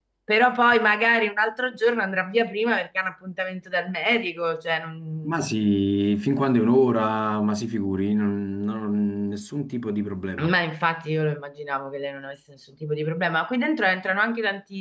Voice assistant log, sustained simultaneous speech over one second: none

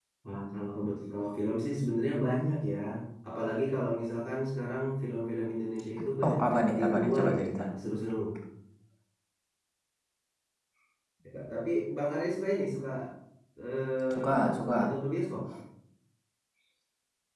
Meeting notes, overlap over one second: present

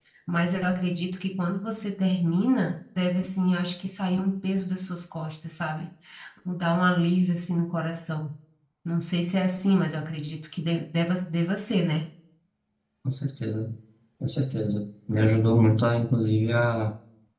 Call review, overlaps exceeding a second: none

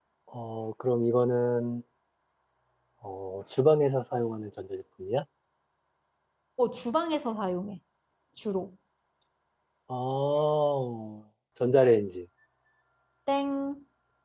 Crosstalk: none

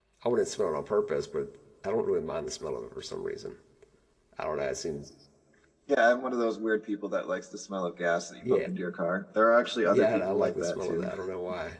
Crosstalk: present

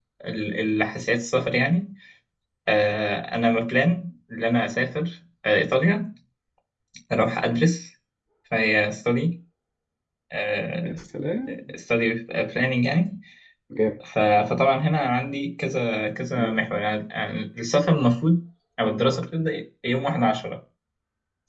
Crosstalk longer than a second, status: none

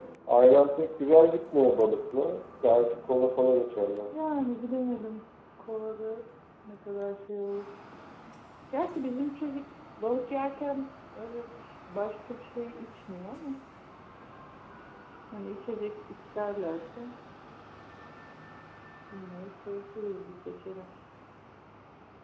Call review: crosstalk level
none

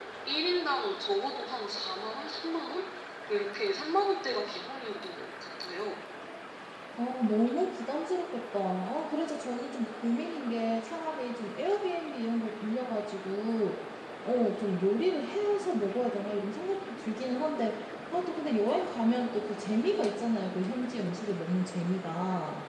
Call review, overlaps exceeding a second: none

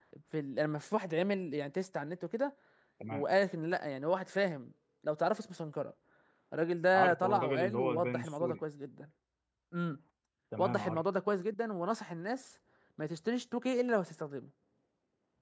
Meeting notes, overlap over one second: present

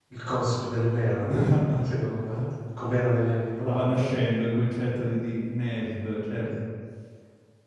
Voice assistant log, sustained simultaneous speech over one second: none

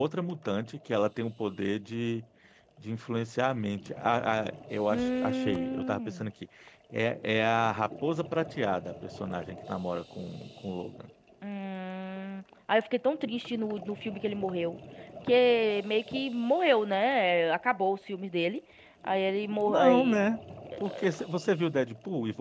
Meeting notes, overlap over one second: present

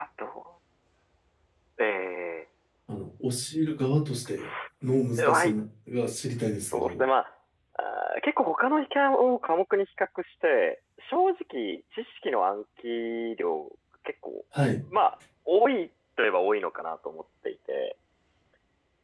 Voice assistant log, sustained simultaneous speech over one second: none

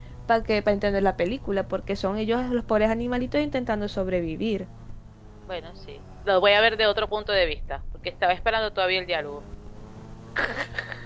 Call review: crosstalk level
none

